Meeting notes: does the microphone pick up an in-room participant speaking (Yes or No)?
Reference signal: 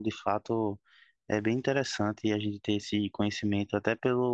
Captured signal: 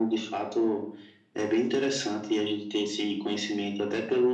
No